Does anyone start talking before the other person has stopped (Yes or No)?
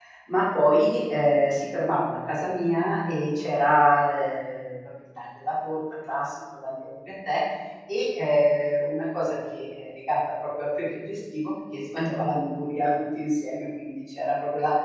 No